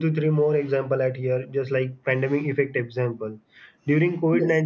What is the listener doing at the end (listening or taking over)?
listening